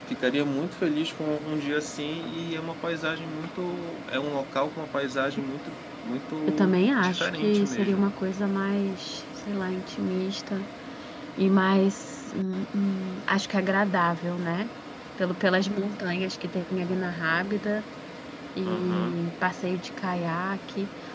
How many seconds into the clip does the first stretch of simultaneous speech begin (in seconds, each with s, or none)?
6.5 s